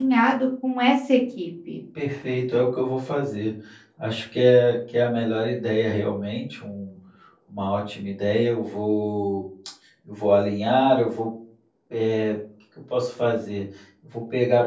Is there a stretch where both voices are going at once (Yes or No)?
No